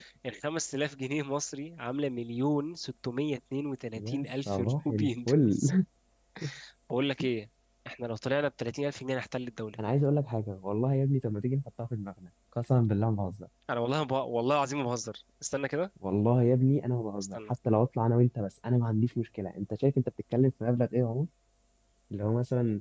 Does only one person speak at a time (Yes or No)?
No